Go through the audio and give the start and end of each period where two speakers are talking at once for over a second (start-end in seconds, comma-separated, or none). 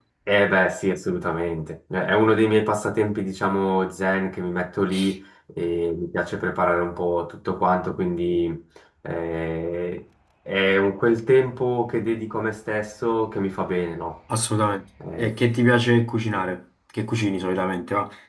none